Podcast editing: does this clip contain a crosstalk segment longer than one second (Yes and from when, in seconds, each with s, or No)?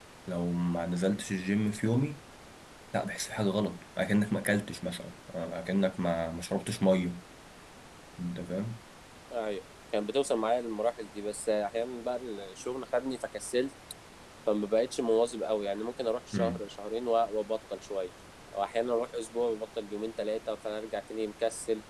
No